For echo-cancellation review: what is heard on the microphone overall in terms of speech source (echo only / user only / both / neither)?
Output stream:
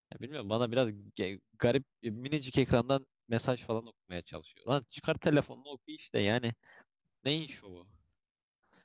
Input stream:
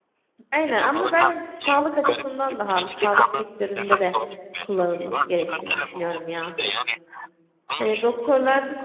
both